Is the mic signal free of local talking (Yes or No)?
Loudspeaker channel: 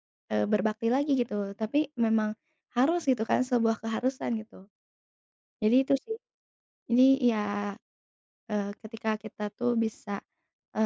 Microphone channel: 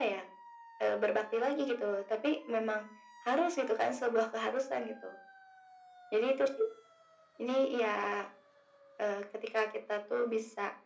Yes